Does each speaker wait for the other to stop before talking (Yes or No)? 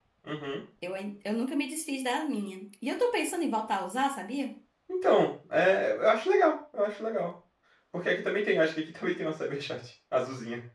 Yes